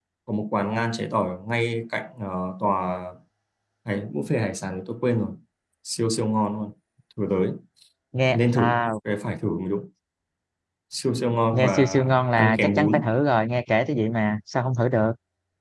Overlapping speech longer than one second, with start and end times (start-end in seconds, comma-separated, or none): 11.5-13.1